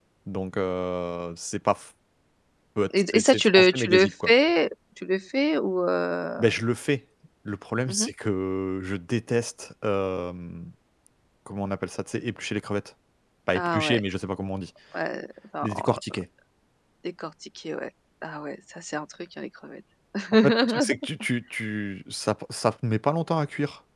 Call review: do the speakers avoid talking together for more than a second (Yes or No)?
No